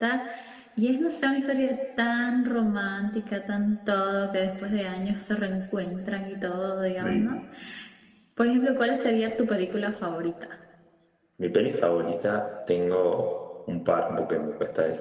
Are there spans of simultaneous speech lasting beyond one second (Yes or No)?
No